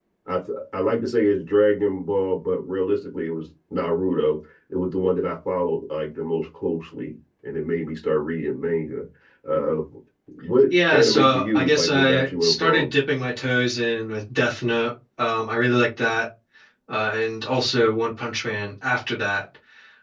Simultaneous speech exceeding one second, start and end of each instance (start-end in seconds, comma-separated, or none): 10.7-12.9